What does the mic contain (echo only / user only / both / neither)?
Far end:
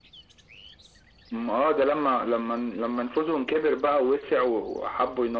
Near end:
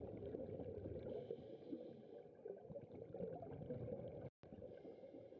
neither